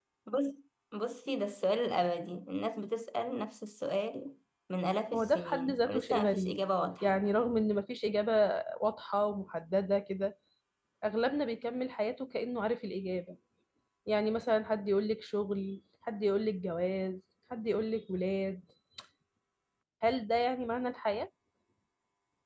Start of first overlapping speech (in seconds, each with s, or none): 5.1 s